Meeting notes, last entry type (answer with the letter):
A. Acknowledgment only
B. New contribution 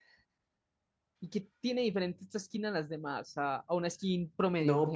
B